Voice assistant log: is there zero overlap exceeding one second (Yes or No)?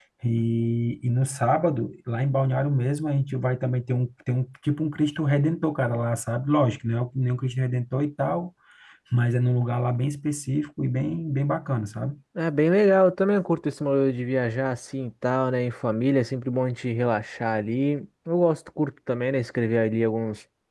Yes